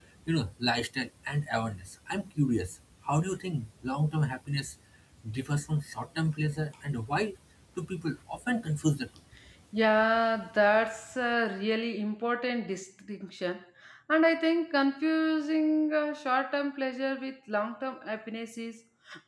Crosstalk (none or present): none